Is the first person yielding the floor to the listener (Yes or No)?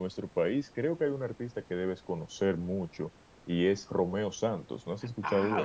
Yes